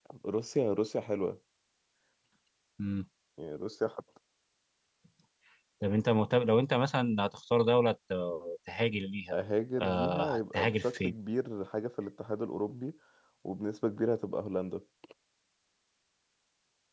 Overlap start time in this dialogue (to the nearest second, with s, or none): 10 s